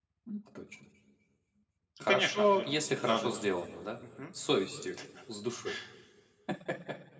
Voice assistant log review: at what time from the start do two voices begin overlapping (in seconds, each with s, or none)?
2.0 s